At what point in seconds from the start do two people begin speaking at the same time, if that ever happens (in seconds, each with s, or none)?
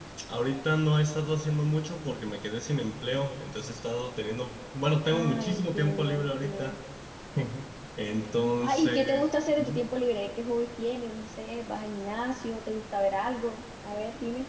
5.1 s